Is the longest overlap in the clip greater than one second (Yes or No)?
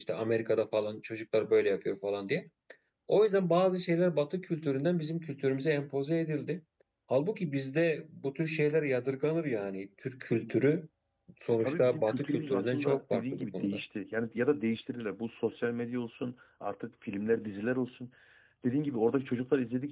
Yes